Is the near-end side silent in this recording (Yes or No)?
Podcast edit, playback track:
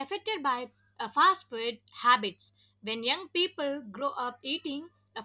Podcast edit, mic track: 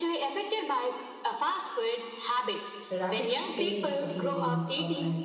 No